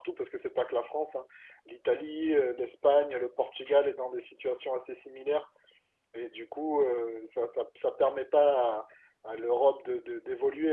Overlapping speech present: No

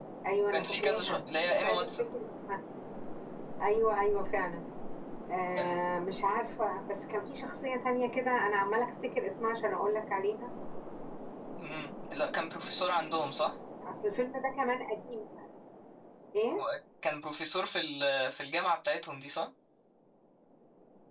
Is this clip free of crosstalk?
No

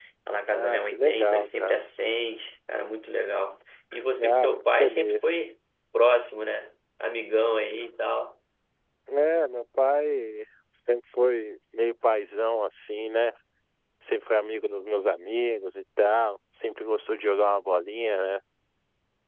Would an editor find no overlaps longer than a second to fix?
No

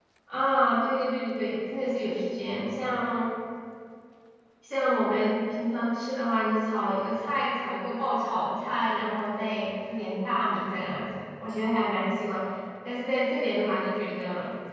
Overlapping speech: No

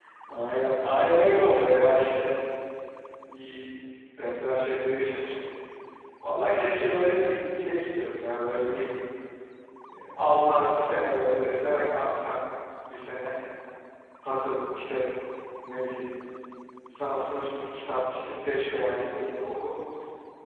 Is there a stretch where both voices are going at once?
No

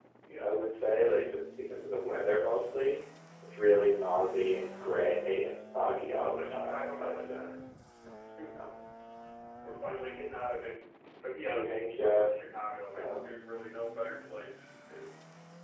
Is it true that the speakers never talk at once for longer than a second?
No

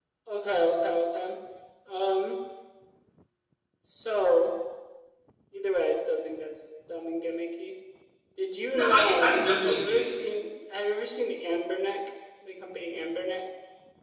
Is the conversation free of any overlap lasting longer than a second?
No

